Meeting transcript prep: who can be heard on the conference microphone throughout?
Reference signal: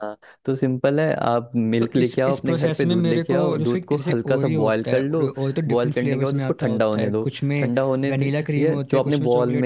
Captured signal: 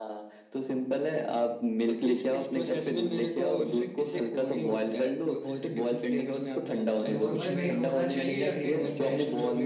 both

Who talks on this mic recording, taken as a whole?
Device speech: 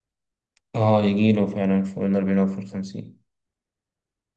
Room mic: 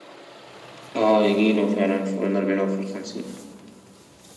echo only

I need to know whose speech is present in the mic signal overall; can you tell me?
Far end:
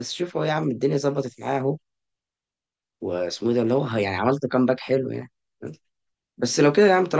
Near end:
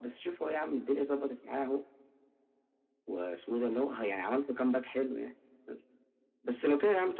echo only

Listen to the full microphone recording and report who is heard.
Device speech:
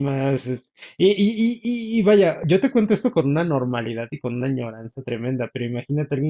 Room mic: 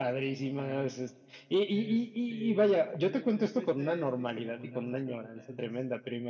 both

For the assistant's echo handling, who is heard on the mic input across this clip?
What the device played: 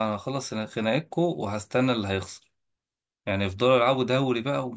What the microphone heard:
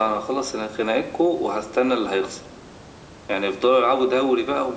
echo only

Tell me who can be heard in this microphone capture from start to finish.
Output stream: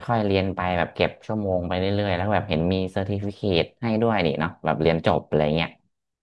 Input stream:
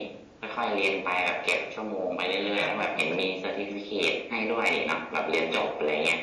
both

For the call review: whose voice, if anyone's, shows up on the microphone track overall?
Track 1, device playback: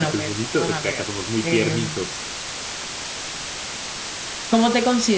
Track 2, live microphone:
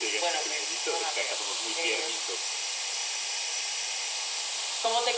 echo only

